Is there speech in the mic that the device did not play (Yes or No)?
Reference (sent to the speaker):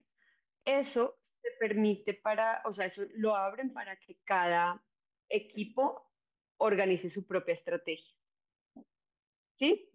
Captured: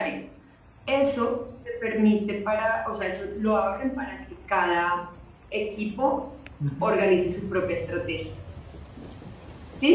Yes